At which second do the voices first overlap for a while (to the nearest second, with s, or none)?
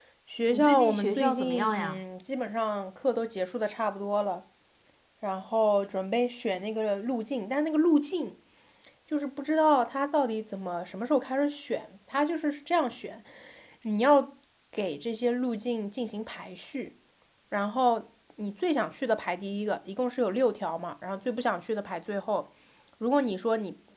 1 s